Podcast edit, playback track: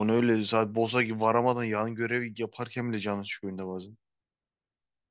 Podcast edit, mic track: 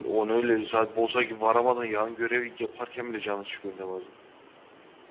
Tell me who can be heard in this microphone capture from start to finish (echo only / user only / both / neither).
echo only